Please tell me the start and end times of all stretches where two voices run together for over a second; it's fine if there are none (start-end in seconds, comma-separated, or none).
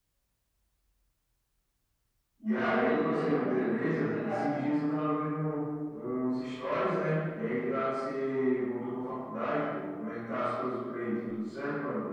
2.5-4.6